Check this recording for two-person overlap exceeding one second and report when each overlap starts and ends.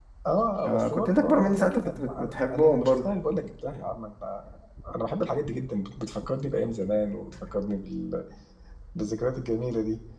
0.7-3.1

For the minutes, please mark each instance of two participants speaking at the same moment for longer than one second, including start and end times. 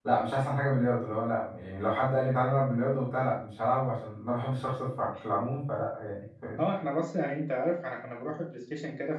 none

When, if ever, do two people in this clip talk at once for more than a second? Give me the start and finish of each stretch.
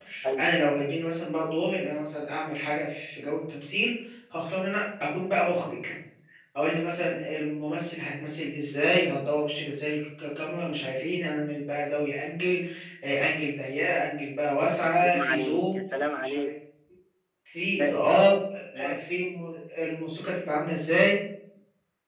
14.8-16.5

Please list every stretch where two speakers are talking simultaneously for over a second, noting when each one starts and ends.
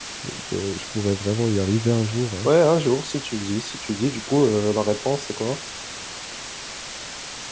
none

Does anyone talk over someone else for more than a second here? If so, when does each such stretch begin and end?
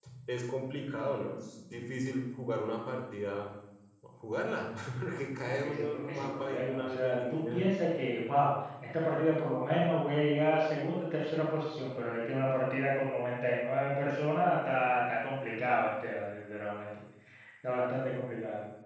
5.5-7.7

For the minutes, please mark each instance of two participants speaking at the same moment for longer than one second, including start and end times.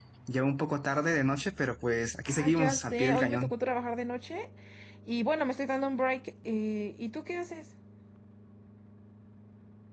2.3-3.5

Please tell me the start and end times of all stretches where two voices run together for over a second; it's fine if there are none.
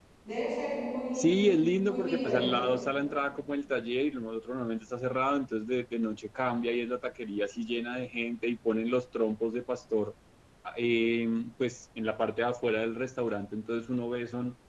1.1-2.4

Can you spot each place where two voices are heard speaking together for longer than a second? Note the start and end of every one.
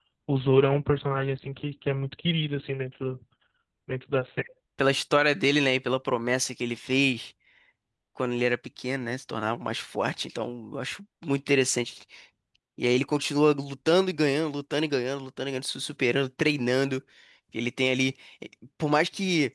none

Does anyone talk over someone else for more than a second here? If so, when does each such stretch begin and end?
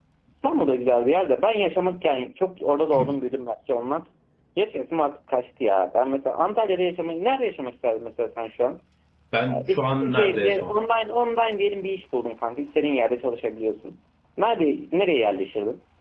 9.5-10.7

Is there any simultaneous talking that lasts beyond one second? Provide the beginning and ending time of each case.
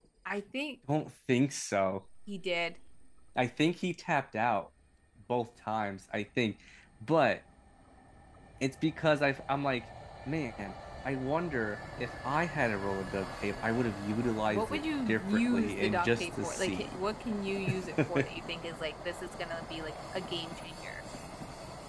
14.5-16.9

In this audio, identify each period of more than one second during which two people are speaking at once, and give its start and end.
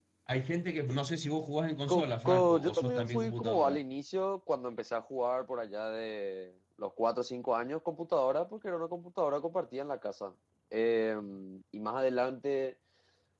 1.9-3.8

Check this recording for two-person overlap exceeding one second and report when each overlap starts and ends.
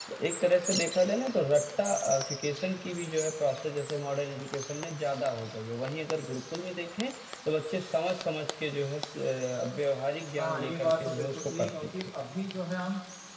10.4-11.9

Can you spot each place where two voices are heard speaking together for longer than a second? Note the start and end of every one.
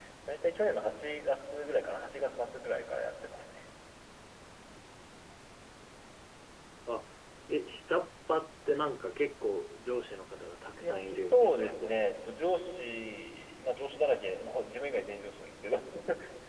10.8-12.0

